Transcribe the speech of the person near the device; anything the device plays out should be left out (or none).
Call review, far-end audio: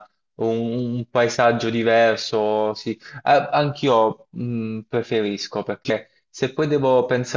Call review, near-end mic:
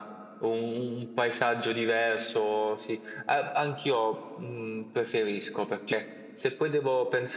none